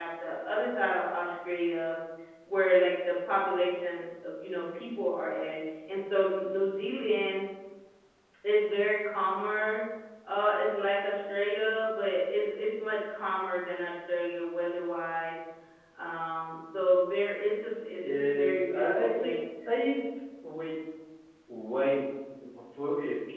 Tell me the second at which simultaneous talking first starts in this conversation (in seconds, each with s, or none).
18.0 s